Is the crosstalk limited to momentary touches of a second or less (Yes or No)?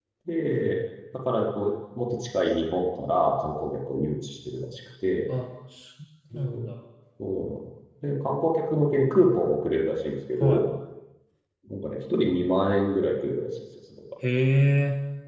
Yes